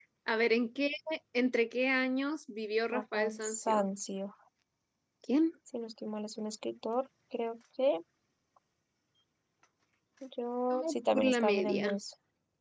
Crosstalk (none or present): present